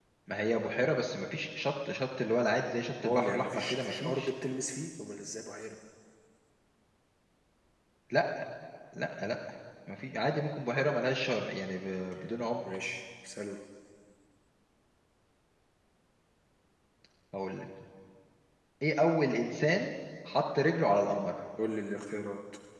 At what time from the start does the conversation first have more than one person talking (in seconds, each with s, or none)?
3.0 s